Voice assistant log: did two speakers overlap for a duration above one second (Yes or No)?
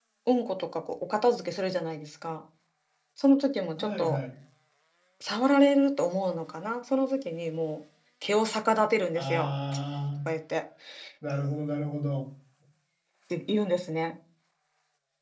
No